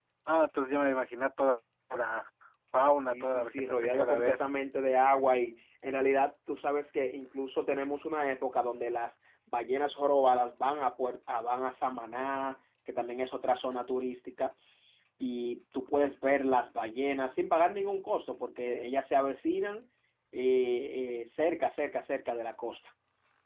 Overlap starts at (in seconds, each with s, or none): 3.0 s